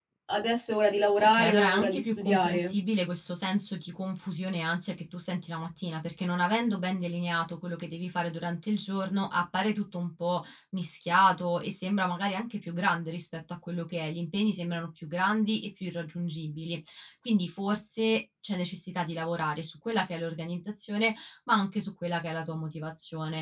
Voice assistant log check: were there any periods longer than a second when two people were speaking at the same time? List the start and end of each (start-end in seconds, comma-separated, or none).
1.2-2.7